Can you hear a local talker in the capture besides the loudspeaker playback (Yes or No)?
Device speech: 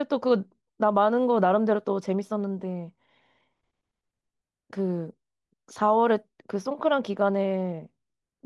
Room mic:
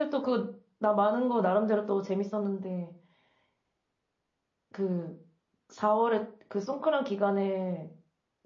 No